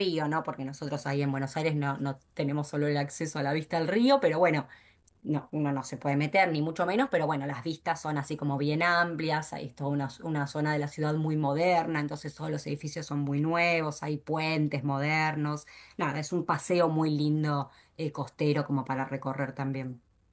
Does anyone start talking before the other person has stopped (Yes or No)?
No